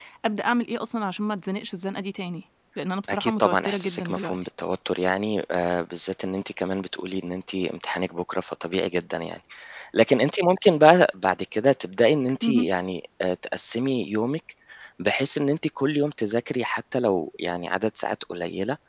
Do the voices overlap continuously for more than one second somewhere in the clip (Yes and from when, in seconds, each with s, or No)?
Yes, from 3.1 s